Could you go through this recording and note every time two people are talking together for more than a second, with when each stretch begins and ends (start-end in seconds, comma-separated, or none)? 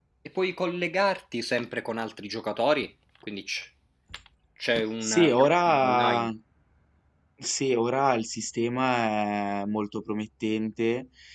5.0-6.3